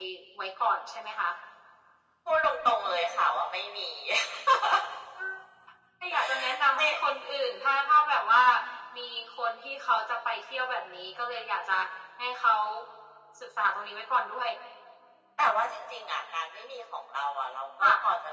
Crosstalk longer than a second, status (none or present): none